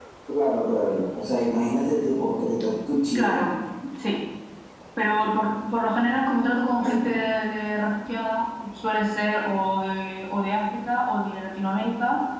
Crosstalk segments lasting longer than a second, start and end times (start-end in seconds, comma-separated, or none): none